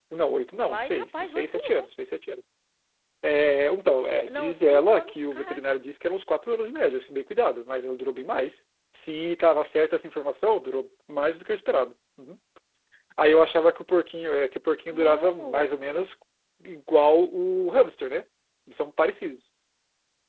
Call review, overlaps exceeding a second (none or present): present